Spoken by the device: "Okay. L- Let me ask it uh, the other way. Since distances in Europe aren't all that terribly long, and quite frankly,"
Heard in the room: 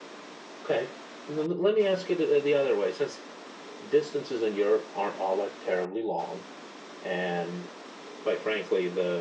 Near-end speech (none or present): none